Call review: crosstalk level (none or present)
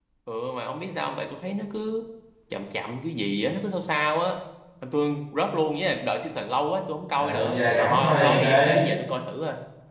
present